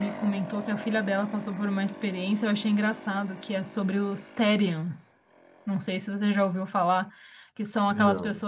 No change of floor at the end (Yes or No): Yes